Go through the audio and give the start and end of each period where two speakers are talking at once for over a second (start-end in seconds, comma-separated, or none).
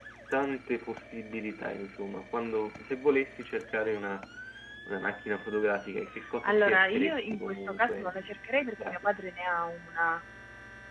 6.4-8.1